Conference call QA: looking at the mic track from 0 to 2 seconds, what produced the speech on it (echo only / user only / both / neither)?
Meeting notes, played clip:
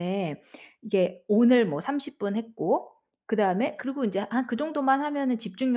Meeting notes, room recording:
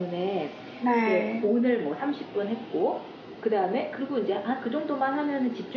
both